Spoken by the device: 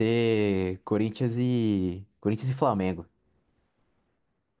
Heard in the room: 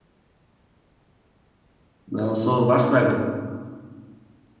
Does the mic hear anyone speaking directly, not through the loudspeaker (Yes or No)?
Yes